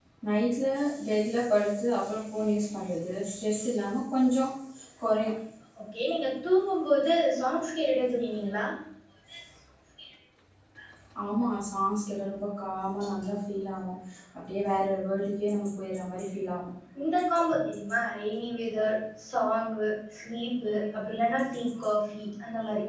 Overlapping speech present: No

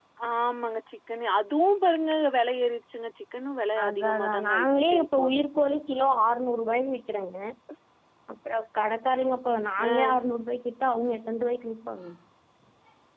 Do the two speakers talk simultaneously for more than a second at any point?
Yes, from 3.8 s

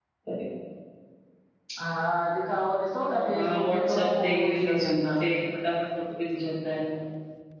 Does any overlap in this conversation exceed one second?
Yes, from 3.2 s

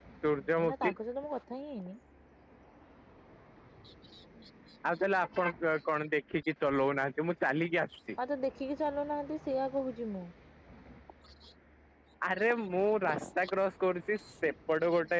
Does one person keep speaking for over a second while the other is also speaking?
No

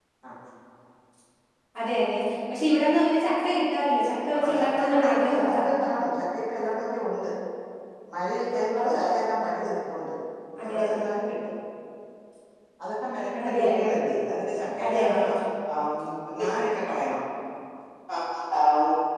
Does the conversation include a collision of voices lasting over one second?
Yes, from 4.4 s

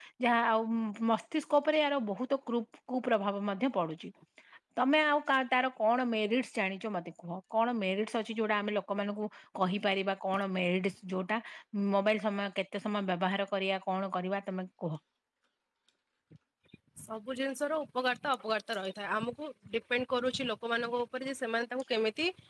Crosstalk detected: No

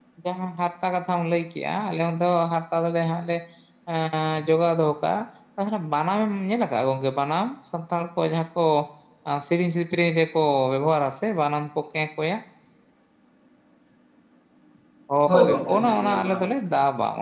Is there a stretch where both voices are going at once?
Yes, from 15.3 s

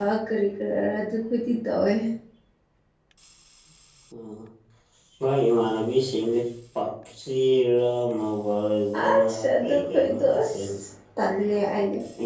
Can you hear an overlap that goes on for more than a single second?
Yes, from 8.9 s

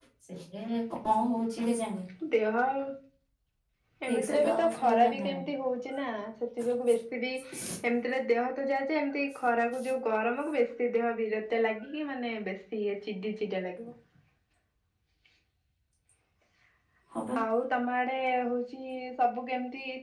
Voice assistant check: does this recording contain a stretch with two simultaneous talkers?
Yes, from 4.1 s

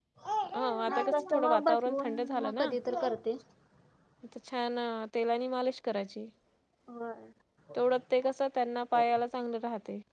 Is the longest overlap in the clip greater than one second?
Yes, from 0.5 s

